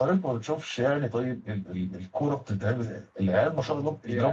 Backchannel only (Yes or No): Yes